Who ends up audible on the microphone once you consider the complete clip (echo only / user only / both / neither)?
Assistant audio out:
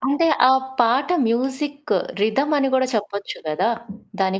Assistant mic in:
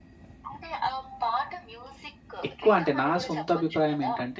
both